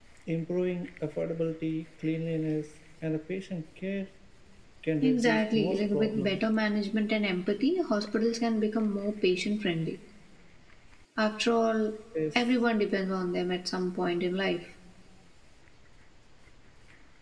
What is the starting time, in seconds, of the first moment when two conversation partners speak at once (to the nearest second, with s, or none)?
5 s